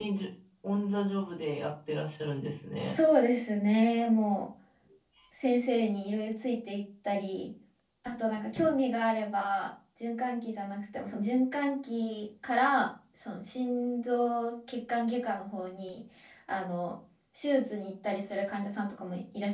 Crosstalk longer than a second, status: none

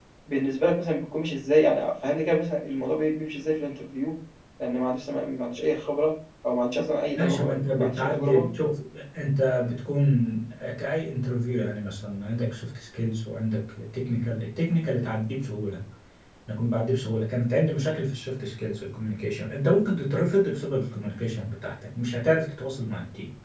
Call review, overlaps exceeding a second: present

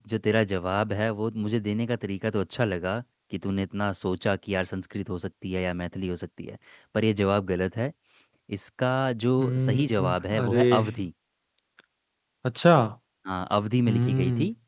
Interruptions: present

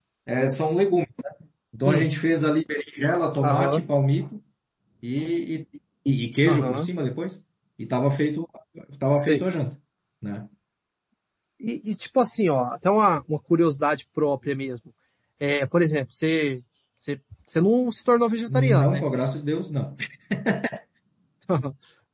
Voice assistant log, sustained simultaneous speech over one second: none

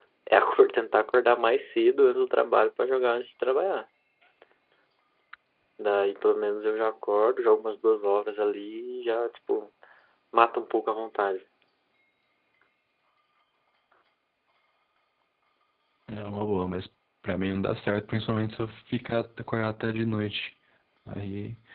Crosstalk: none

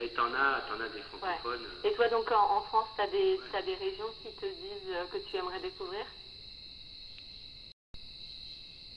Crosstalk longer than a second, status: none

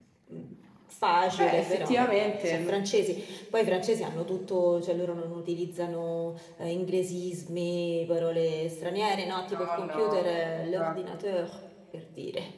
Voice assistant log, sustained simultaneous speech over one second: present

